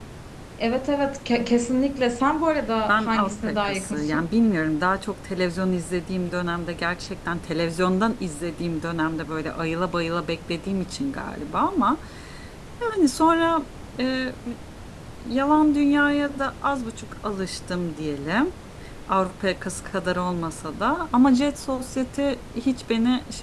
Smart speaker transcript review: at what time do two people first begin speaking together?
2.9 s

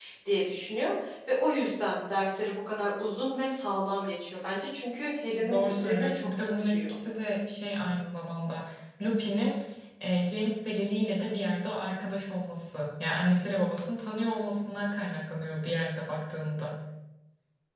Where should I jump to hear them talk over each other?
5.4 s

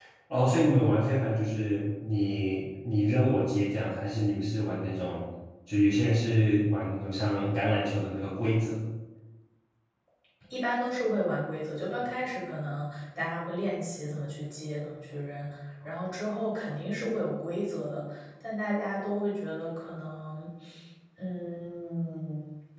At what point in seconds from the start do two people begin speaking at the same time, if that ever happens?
none

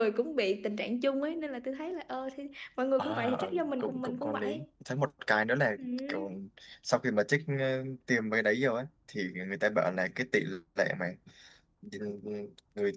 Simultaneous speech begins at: 3.0 s

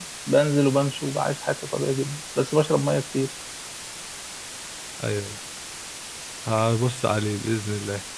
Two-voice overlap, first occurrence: none

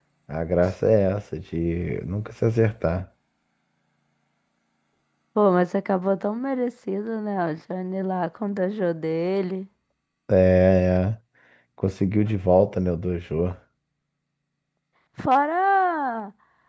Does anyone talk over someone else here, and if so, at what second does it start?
none

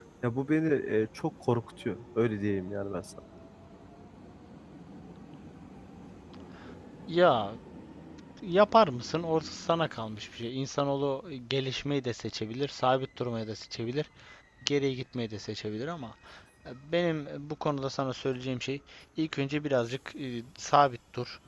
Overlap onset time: none

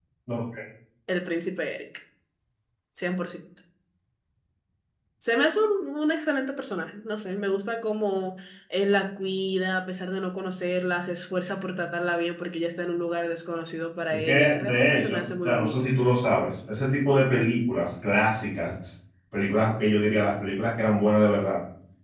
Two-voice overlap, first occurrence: 14.1 s

